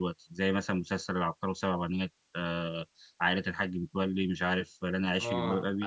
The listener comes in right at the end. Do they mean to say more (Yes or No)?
Yes